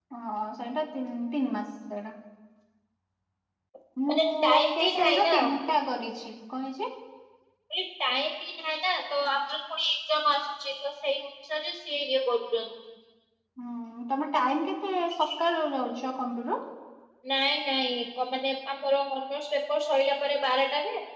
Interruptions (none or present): present